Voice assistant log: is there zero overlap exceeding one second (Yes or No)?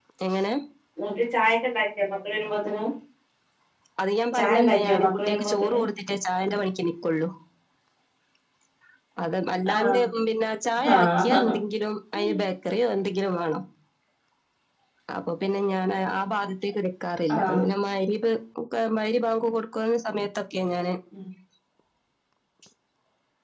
No